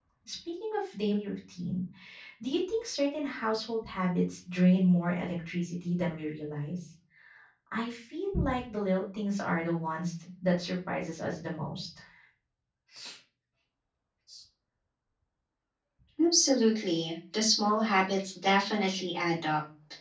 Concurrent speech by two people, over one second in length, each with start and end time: none

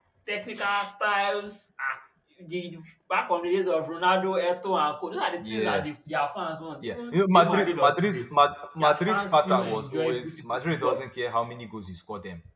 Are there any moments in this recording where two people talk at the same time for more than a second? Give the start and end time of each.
6.8-8.3, 8.8-11.1

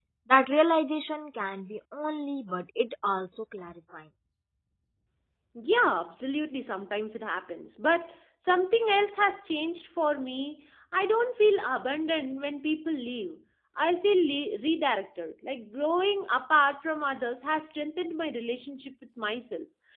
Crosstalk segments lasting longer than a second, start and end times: none

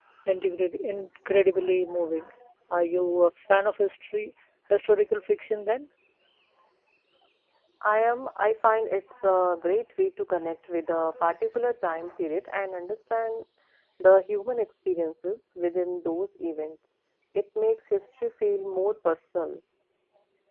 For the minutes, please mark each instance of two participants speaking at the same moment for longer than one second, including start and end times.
none

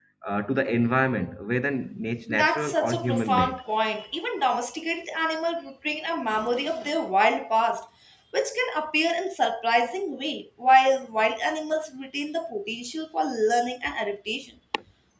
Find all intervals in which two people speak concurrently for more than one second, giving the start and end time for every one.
2.3-3.6

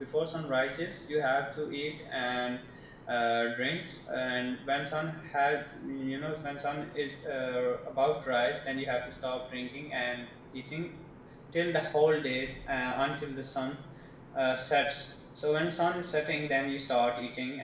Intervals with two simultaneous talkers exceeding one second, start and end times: none

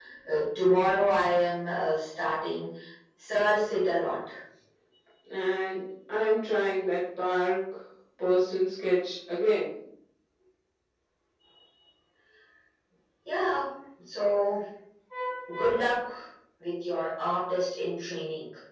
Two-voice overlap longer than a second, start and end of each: none

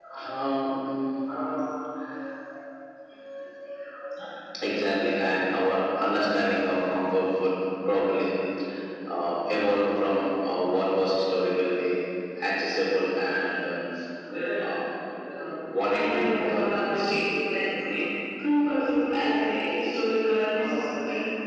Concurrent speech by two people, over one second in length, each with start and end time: 15.9-17.2

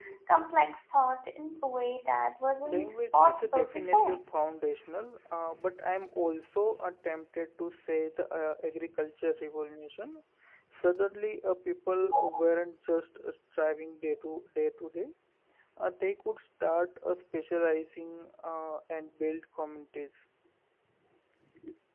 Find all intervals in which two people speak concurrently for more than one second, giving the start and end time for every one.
2.6-4.2

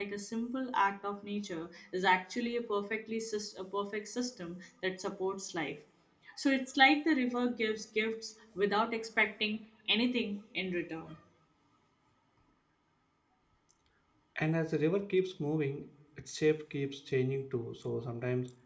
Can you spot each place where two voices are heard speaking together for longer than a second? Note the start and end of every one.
none

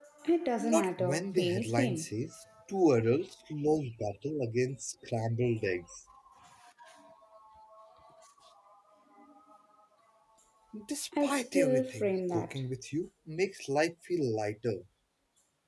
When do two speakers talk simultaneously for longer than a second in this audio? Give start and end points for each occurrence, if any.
0.6-2.1, 11.2-12.6

